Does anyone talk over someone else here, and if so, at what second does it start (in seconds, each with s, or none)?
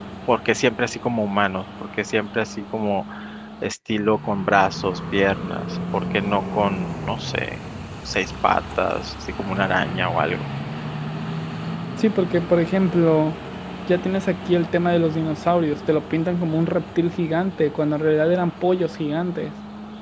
none